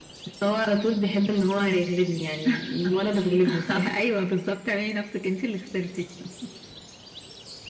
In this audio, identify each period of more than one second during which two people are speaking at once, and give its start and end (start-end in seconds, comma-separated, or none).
none